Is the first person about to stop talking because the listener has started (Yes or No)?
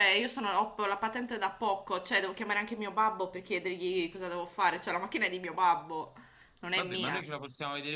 Yes